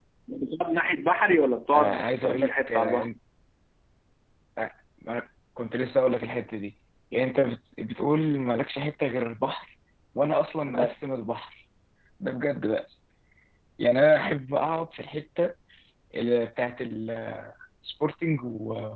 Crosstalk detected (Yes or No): Yes